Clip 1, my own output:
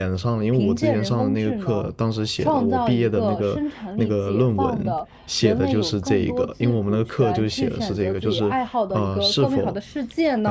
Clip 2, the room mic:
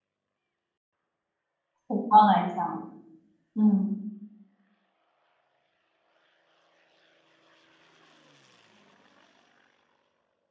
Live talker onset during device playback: 2 s

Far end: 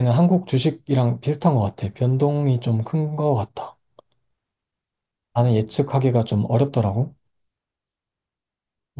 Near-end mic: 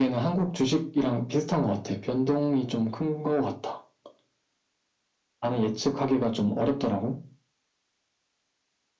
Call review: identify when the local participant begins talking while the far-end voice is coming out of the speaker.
none

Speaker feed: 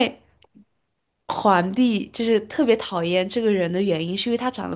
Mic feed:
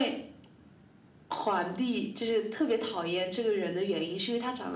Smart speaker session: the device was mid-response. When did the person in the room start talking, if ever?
none

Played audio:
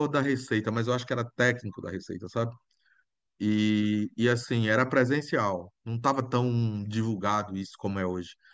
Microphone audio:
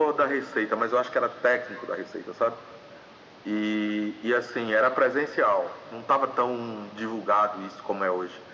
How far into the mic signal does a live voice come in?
none

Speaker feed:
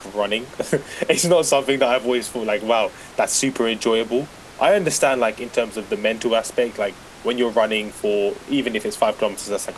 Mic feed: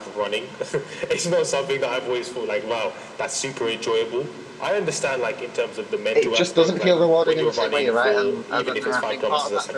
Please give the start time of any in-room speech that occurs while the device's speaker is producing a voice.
6 s

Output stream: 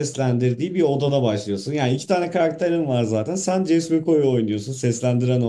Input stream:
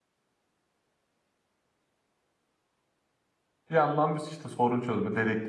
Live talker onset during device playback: 4 s

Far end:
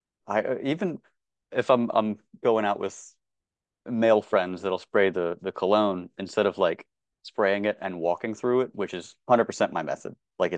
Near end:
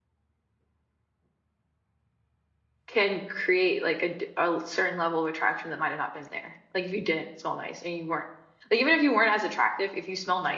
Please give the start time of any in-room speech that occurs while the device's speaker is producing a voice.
3 s

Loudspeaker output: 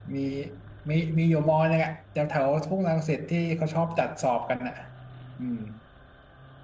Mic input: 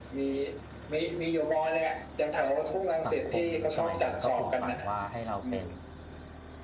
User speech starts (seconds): 3 s

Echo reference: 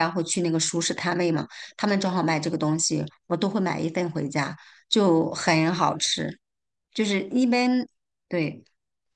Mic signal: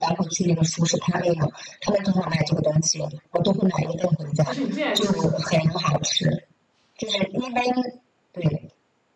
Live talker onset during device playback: 4 s

